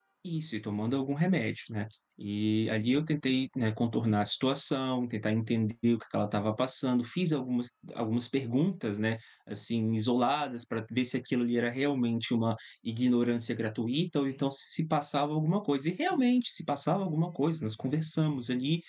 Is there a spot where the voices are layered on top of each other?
No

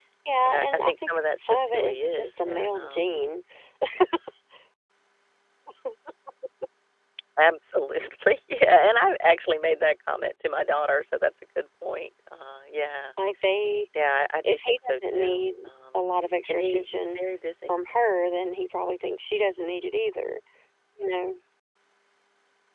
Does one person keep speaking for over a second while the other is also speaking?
Yes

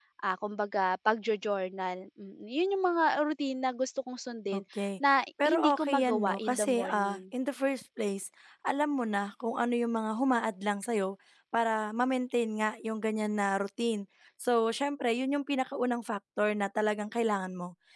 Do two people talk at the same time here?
Yes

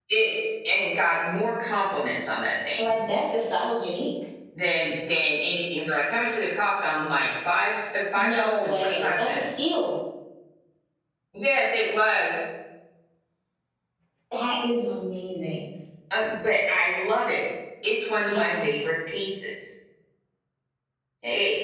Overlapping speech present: Yes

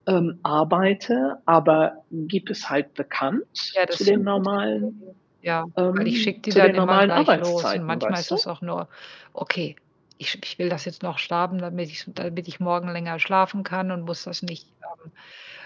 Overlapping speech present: Yes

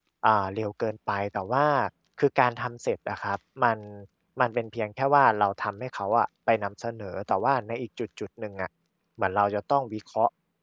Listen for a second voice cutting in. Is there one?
No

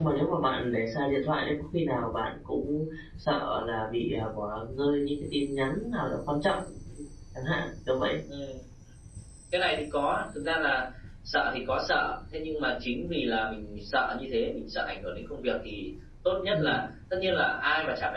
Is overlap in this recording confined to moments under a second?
Yes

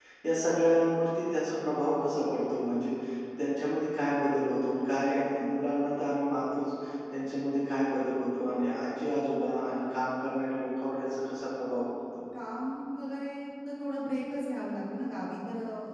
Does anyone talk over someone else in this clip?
No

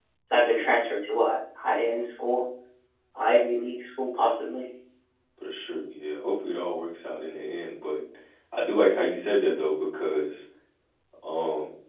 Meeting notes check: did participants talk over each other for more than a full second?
No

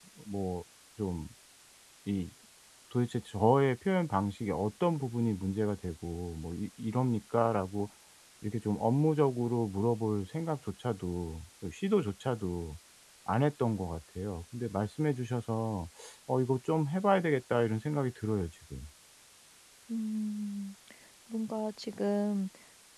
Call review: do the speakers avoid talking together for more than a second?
Yes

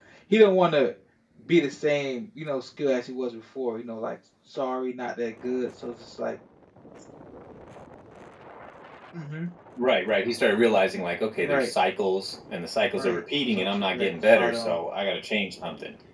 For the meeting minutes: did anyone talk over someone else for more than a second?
Yes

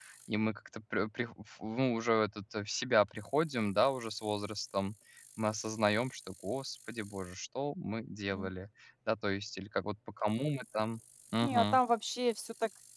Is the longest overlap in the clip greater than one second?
No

